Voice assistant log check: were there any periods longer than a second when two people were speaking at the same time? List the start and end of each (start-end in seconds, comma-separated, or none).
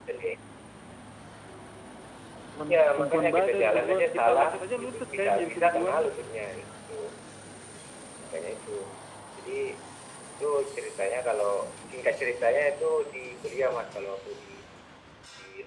2.7-6.0